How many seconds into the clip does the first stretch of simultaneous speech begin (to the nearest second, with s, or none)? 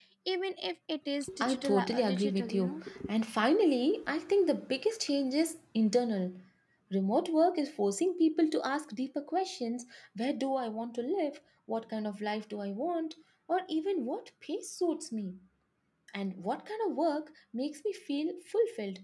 1 s